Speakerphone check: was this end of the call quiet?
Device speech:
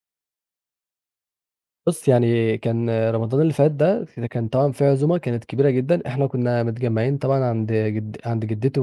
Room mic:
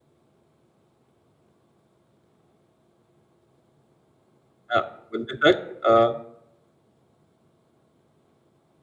No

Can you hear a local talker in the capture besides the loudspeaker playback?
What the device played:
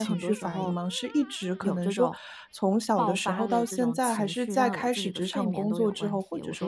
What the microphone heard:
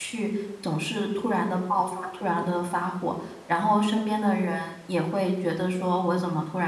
Yes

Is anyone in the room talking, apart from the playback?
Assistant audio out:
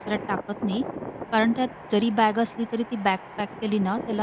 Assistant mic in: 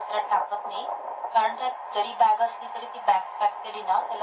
No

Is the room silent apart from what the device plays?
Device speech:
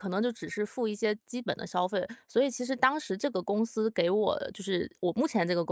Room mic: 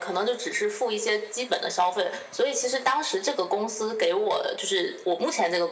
Yes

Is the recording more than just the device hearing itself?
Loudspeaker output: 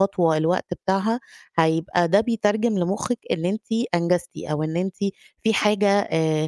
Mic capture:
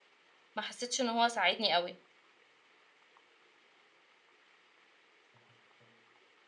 Yes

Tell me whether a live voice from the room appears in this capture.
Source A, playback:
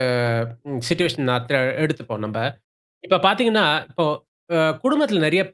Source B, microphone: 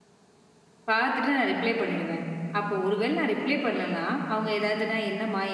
Yes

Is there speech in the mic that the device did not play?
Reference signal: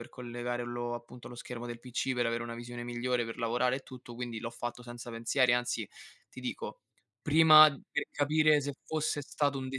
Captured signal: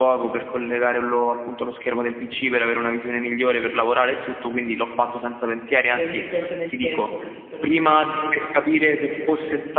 Yes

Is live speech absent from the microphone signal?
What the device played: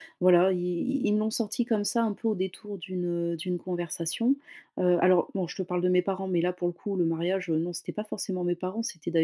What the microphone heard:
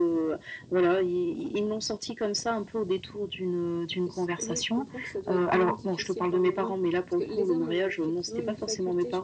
No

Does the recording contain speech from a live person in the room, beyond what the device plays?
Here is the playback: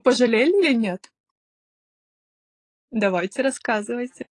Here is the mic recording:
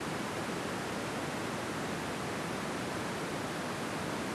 No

